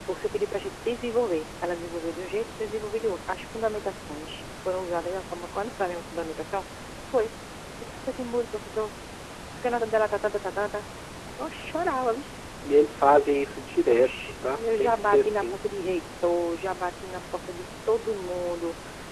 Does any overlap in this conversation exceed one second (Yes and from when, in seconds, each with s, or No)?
Yes, from 13.9 s